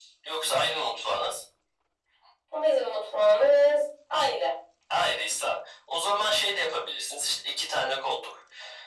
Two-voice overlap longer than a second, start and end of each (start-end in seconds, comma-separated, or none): none